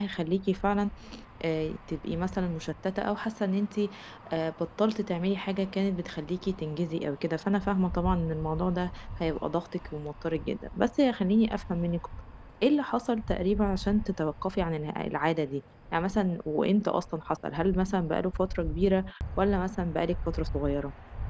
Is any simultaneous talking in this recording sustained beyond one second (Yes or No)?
No